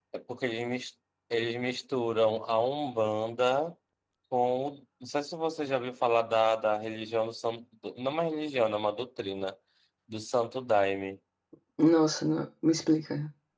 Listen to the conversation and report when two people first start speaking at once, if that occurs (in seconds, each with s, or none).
none